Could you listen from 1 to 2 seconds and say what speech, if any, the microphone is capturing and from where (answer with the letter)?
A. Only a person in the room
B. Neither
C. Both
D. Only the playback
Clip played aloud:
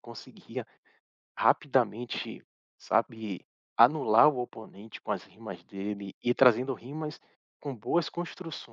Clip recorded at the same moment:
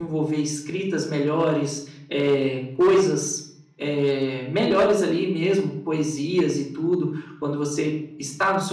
A